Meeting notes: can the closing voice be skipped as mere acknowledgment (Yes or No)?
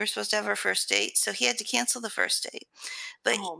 Yes